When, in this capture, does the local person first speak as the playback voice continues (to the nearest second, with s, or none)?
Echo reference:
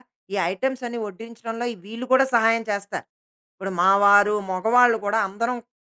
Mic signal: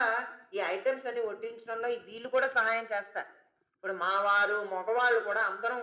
none